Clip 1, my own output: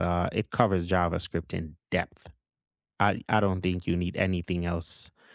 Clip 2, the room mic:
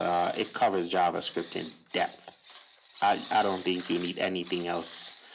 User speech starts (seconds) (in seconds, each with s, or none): none